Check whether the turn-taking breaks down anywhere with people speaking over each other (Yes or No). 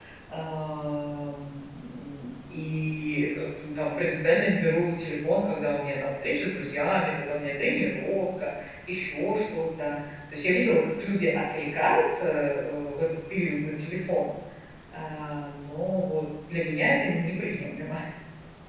No